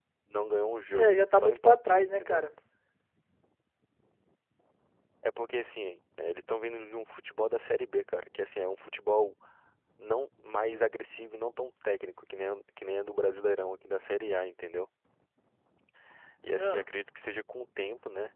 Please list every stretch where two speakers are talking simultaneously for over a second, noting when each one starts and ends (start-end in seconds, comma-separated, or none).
0.9-2.4